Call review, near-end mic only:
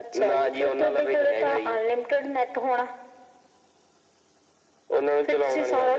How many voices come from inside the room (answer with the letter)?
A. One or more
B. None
B